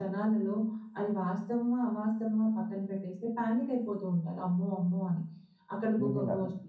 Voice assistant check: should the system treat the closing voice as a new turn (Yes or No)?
No